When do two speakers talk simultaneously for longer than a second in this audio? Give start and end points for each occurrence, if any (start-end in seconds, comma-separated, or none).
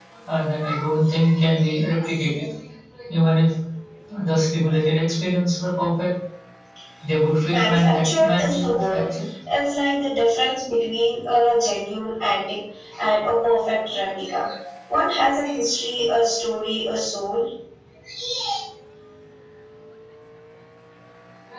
7.5-9.0